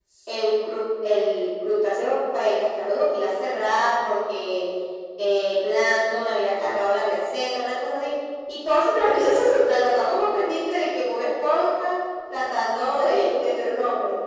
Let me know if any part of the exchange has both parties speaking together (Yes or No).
No